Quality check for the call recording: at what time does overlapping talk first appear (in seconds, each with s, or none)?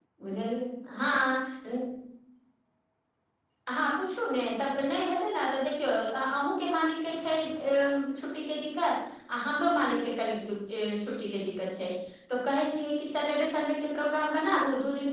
none